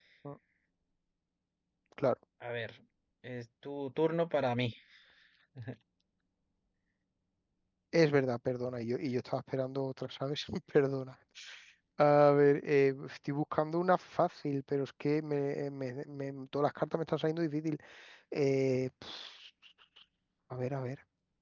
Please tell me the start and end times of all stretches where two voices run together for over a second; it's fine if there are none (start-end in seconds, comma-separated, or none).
none